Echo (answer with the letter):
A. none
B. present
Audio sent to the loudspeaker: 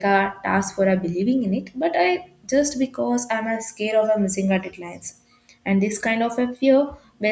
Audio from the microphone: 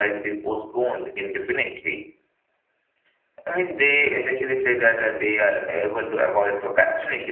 A